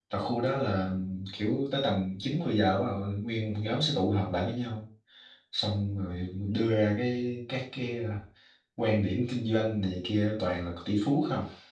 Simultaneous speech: No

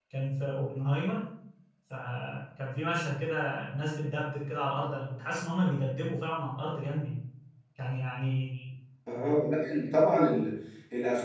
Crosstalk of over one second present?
No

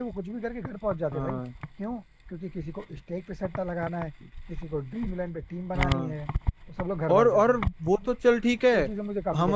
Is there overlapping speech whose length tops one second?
No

